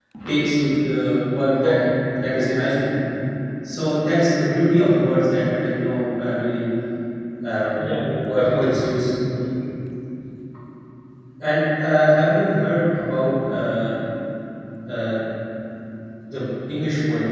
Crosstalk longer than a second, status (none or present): none